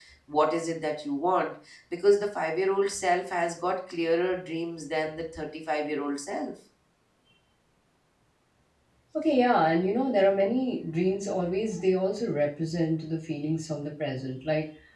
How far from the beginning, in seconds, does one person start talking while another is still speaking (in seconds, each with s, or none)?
none